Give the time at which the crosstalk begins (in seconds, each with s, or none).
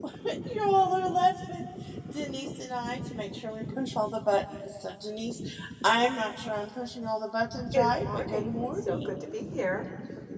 7.7 s